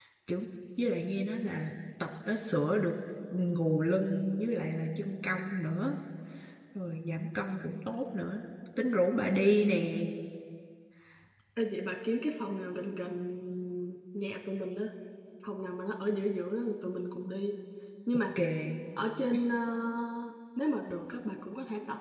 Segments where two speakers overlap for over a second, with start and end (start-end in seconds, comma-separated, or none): none